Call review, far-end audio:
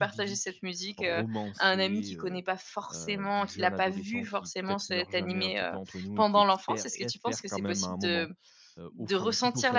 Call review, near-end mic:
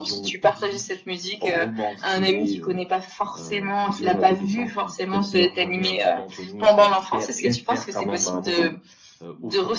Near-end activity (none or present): none